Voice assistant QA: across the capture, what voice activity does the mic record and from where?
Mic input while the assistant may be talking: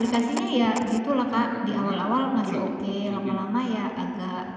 echo only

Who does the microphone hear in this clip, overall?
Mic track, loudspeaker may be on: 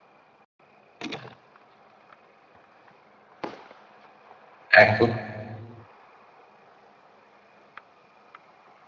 user only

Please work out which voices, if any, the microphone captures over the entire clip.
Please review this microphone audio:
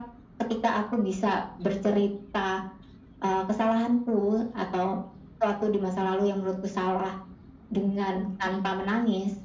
both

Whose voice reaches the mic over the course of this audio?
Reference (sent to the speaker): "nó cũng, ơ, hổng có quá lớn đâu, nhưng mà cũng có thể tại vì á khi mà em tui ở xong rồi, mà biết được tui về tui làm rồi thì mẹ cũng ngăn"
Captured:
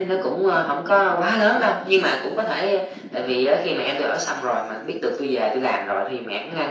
echo only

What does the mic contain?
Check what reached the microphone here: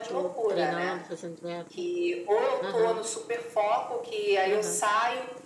both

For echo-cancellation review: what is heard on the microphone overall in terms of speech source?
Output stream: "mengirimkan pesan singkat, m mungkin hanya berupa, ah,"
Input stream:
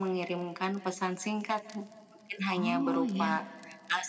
both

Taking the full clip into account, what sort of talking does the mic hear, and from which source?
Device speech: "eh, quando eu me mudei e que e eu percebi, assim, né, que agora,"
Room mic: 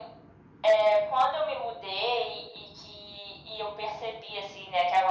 echo only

